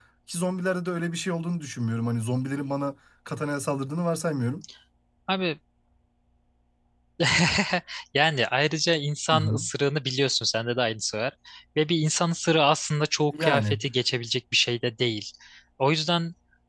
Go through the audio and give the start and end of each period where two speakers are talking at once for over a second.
none

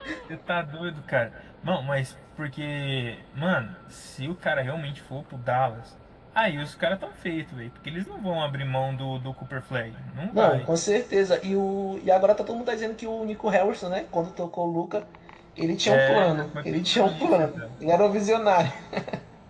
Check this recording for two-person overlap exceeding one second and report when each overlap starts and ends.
15.9-17.6

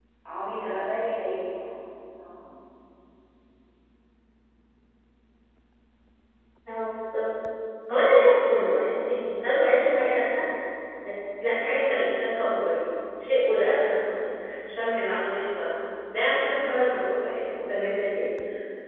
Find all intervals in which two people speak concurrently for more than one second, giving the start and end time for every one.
none

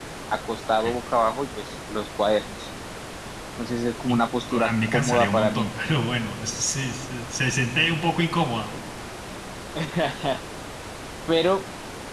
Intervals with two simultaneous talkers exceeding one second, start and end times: 4.1-5.7

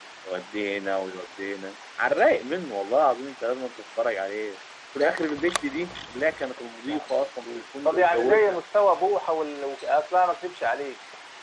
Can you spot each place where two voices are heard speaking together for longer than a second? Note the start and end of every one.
6.8-8.6

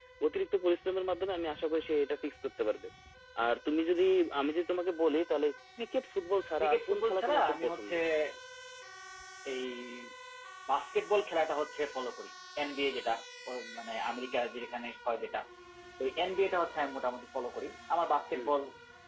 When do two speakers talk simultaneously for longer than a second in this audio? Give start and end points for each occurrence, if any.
6.6-7.9

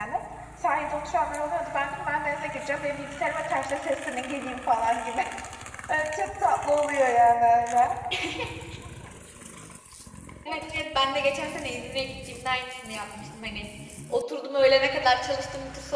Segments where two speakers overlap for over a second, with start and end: none

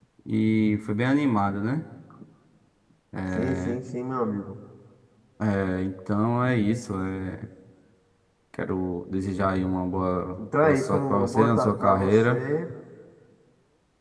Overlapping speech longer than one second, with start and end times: 10.6-12.4

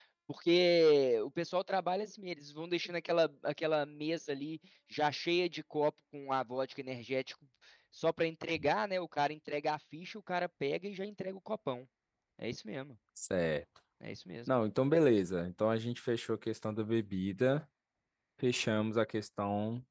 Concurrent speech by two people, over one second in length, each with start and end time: none

